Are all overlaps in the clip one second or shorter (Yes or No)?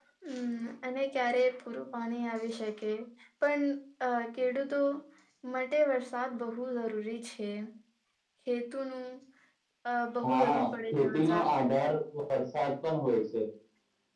No